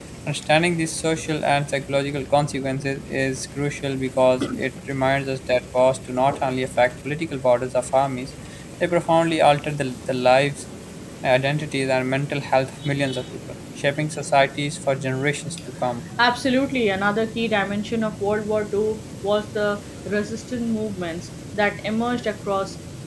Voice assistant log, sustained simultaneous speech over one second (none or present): none